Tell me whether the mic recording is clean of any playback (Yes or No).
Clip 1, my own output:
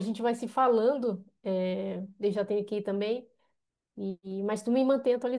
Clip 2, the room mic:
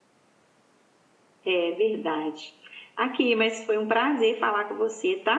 Yes